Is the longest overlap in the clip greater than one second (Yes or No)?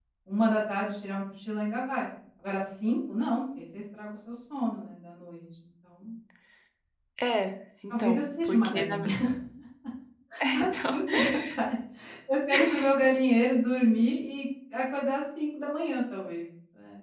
Yes